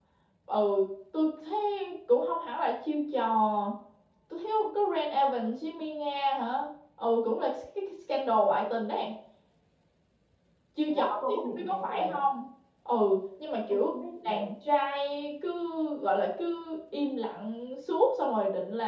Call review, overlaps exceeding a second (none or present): present